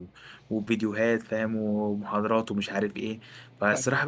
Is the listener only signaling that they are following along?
Yes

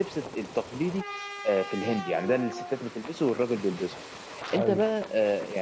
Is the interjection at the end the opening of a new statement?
No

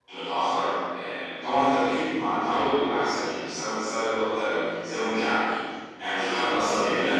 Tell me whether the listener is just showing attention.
No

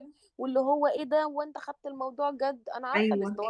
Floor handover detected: Yes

